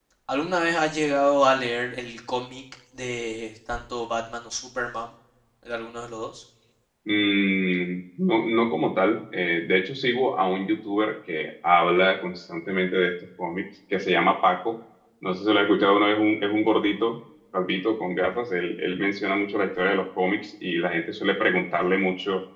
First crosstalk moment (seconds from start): none

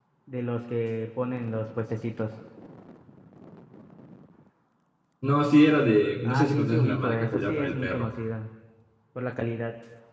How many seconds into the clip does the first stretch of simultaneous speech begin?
6.2 s

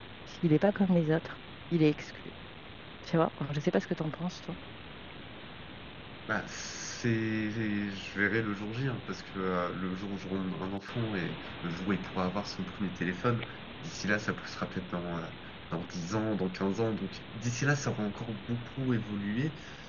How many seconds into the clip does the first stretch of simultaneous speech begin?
none

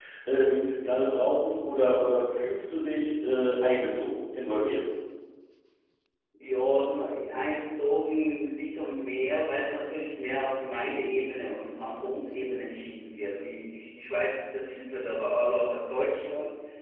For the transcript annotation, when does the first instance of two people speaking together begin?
none

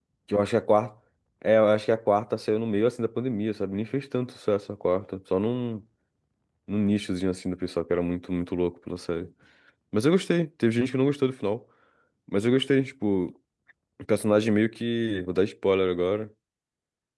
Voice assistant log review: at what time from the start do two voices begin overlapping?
none

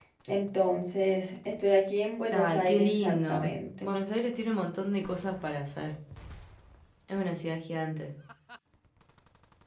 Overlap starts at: 2.3 s

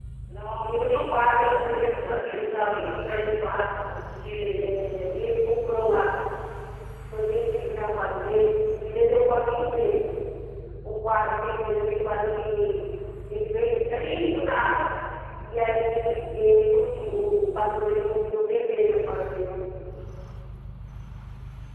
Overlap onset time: 0.7 s

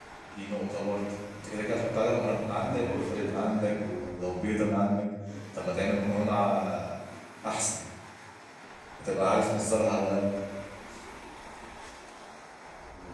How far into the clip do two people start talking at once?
2.3 s

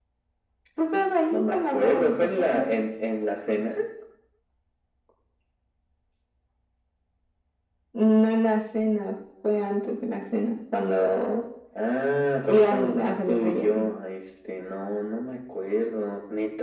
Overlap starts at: 1.3 s

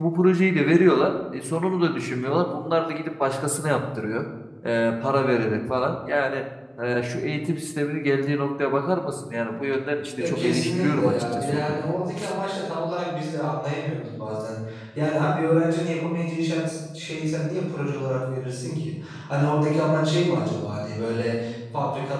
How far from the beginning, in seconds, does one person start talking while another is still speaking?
10.2 s

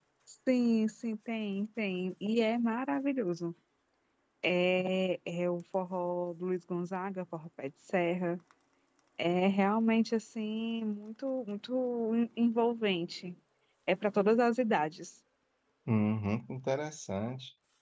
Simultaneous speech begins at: none

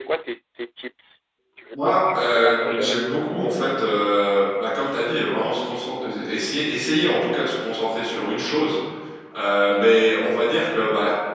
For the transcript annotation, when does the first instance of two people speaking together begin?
1.7 s

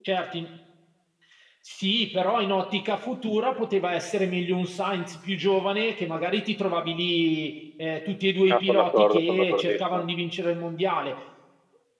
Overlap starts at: 8.5 s

